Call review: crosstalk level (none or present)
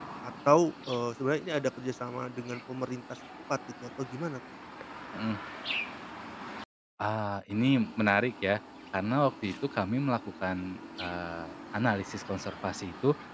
none